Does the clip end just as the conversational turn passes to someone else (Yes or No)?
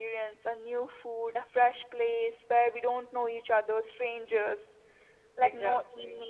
No